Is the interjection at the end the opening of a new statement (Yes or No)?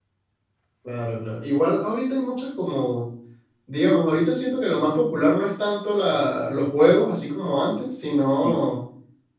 No